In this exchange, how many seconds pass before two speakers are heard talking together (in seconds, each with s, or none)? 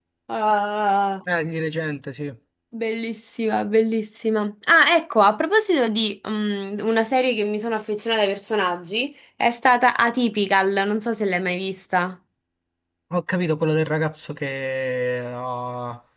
none